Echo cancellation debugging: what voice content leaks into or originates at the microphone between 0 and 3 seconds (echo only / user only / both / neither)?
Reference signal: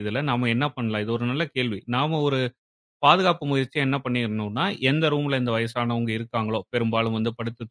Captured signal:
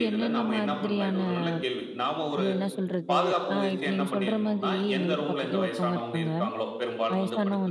both